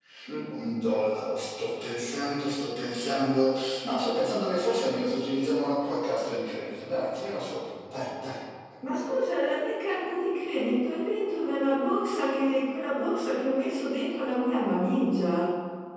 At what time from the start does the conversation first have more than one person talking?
none

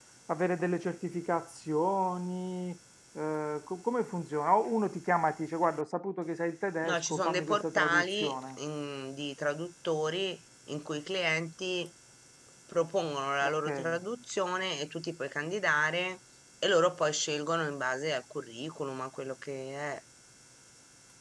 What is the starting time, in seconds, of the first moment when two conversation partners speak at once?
7 s

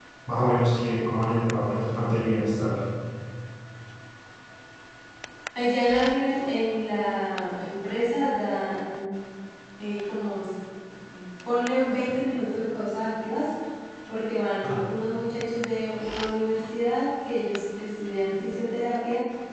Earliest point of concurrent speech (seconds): none

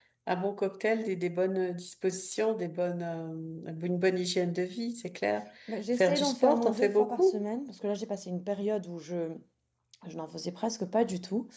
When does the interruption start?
6 s

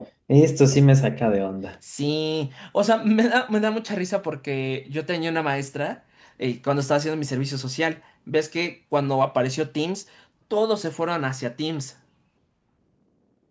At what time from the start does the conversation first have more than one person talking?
none

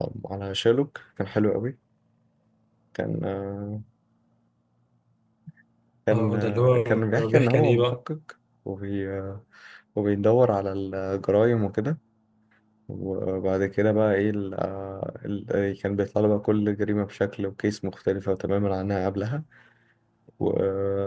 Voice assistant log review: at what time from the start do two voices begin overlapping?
6 s

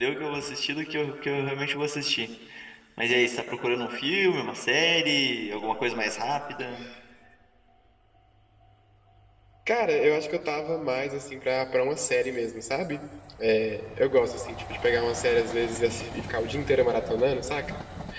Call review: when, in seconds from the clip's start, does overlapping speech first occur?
none

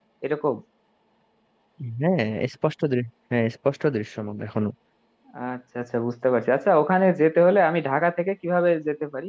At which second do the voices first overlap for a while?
none

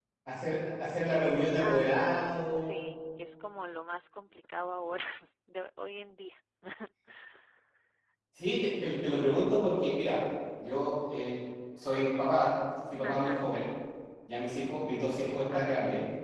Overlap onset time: 2 s

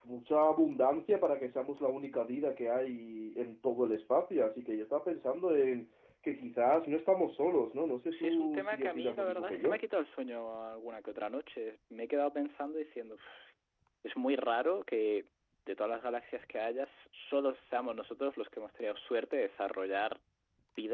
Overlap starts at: 8 s

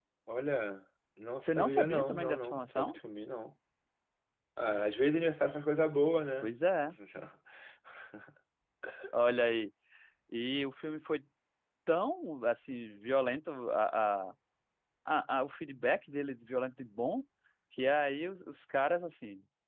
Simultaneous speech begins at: 1 s

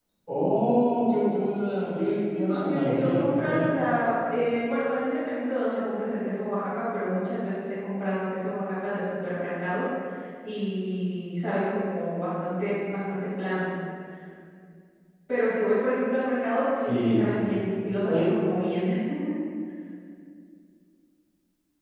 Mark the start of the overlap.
2 s

